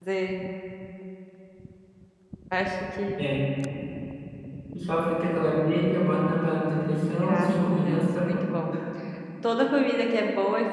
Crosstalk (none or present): present